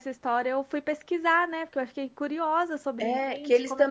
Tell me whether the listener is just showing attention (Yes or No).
No